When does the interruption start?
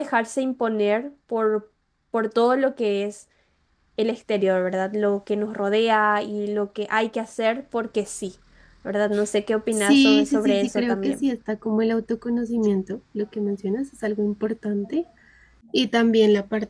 9.7 s

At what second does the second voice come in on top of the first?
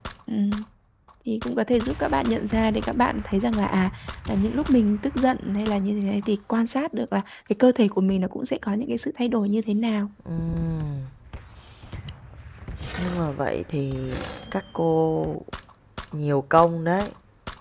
none

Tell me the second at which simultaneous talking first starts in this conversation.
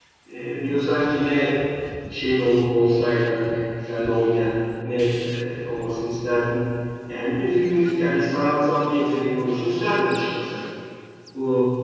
none

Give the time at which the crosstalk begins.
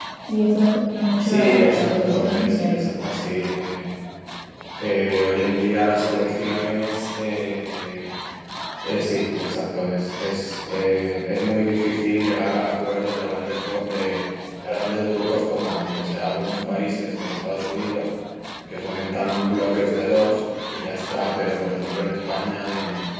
1.2 s

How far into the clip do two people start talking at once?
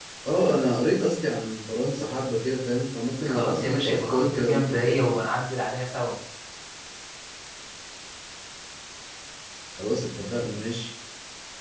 3.2 s

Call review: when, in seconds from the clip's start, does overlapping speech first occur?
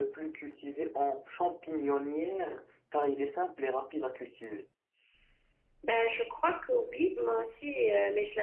none

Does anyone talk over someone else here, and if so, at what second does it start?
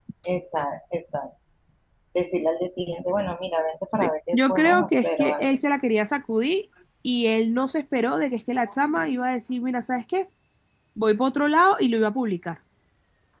3.9 s

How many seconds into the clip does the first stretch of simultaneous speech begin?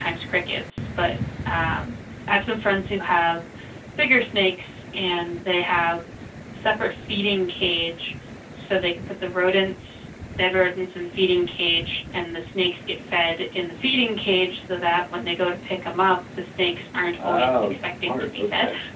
17.2 s

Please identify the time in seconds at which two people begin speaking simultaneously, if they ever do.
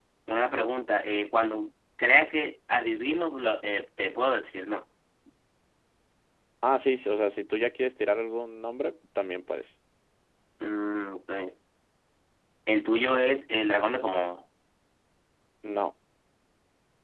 none

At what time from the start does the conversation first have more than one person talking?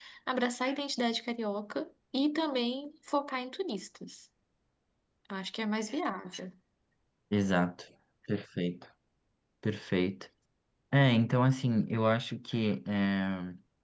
none

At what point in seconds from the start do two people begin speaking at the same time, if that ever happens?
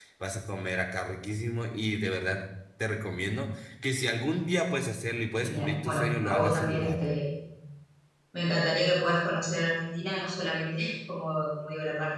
5.4 s

